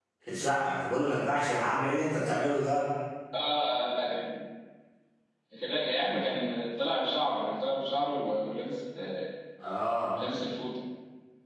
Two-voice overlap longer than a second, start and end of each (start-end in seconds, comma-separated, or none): none